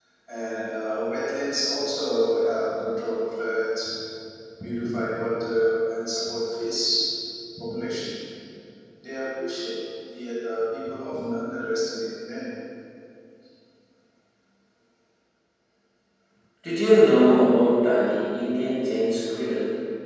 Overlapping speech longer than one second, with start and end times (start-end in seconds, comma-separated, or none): none